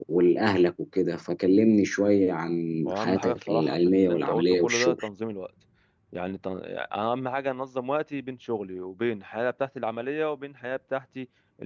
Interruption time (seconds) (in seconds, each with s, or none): 2.9 s